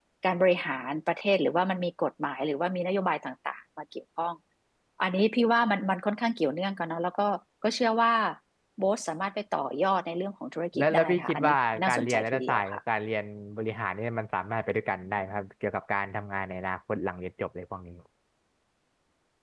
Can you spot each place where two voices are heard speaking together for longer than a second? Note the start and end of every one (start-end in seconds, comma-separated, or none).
10.8-12.8